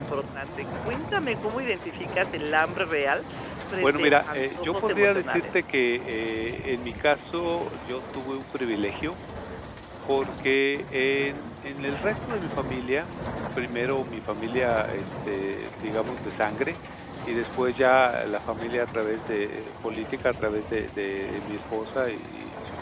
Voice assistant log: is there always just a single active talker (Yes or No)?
No